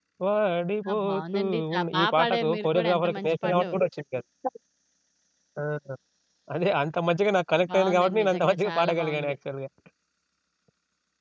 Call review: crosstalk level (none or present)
present